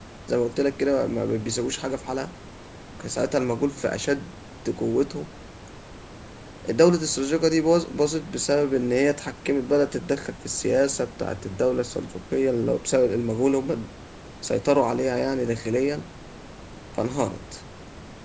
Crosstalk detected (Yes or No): No